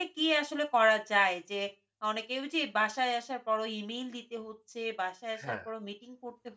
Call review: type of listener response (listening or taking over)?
listening